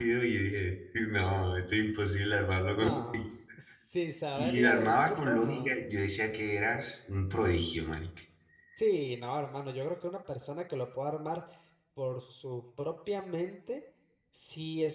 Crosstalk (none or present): present